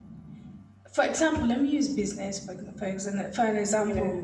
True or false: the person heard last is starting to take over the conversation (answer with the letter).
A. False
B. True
A